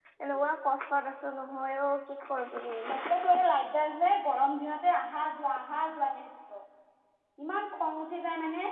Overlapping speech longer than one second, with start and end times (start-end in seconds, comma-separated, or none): none